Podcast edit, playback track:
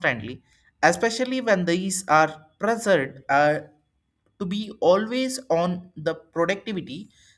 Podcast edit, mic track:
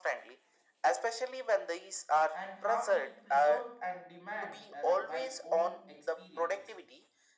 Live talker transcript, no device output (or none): and how we preserve and demand uh, by own experiences